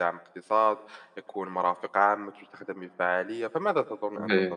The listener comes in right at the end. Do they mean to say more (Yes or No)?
Yes